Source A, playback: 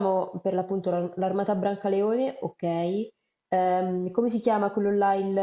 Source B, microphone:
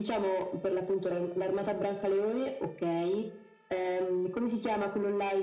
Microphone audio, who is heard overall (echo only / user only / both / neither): echo only